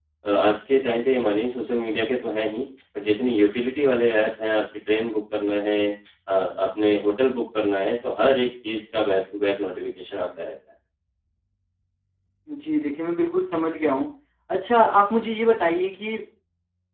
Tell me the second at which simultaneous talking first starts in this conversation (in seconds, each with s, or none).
none